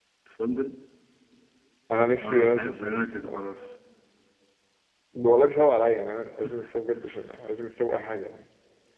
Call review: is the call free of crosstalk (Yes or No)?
No